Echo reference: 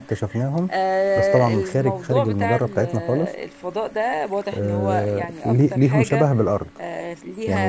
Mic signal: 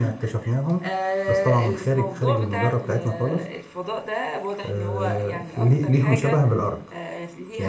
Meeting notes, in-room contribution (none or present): none